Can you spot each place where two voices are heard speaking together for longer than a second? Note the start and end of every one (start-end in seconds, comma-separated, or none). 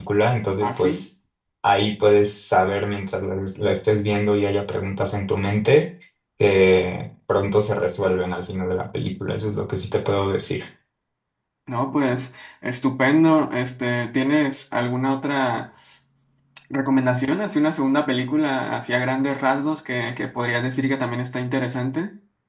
none